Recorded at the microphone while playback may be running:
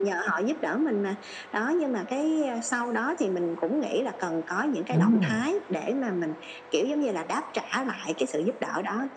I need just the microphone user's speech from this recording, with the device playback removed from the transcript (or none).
Đúng rồi,